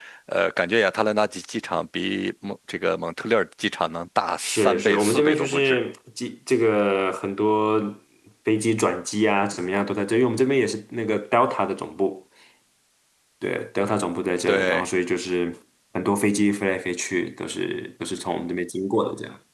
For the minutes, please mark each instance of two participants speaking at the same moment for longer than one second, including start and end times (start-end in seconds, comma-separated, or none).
4.4-5.8